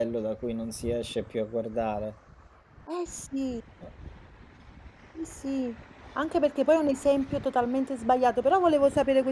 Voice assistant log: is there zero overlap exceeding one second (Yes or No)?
Yes